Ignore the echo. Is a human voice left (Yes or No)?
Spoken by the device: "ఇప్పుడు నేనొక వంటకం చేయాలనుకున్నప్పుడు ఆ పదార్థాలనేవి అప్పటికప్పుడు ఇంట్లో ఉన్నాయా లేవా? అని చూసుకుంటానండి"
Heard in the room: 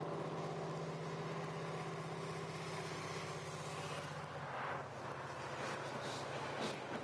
No